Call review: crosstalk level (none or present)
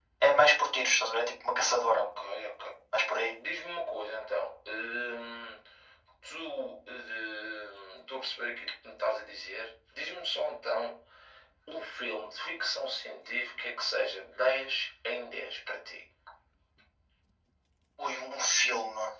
none